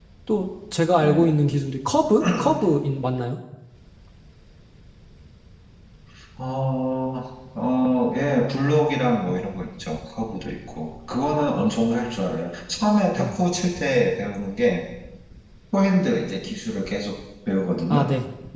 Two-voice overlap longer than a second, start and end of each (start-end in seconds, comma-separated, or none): none